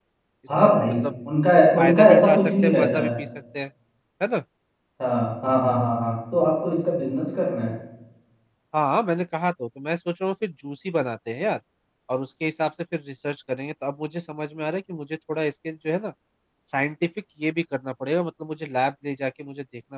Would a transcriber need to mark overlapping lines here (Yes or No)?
Yes